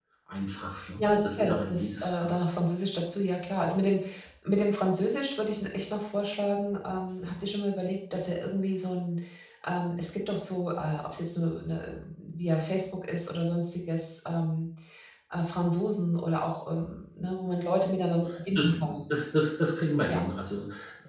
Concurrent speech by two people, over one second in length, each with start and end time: 1.0-2.3

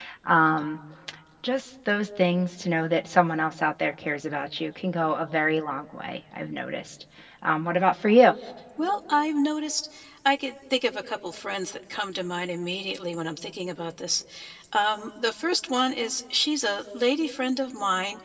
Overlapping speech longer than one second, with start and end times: none

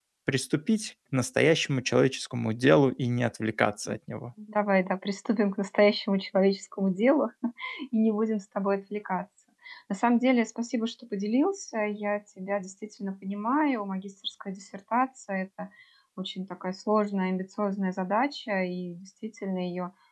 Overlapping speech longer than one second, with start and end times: none

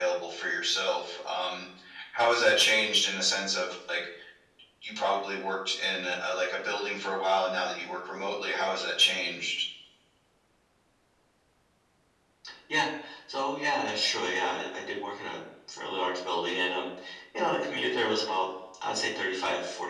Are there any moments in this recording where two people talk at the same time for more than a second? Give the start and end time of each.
none

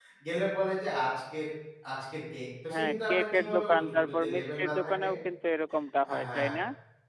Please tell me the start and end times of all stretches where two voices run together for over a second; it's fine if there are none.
2.7-5.1

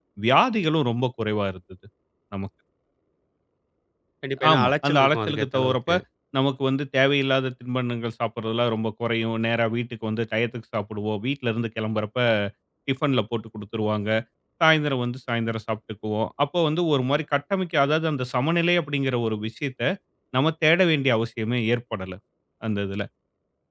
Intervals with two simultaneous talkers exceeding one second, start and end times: 4.5-5.9

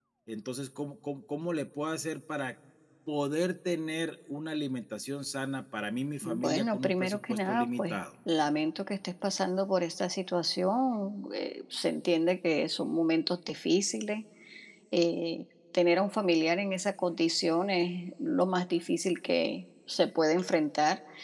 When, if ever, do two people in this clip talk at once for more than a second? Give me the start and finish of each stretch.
6.2-8.0

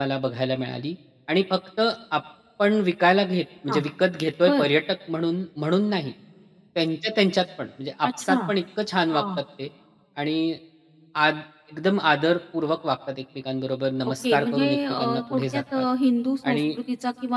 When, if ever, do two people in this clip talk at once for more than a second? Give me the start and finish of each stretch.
14.2-15.8

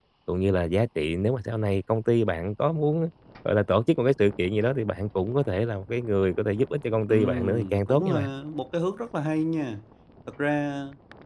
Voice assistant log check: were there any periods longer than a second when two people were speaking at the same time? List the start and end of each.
7.1-8.3

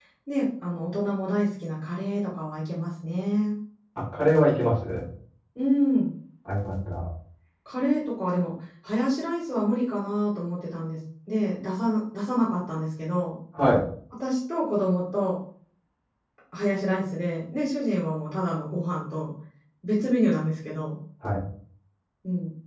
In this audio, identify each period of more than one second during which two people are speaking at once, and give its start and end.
none

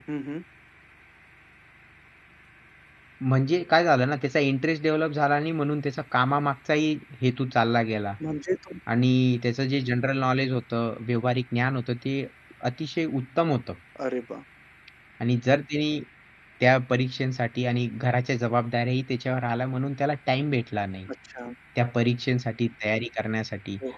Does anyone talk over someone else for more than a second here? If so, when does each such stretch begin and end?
none

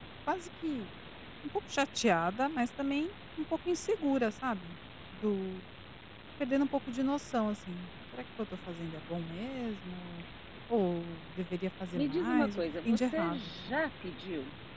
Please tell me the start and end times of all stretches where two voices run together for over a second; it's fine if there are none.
12.0-13.8

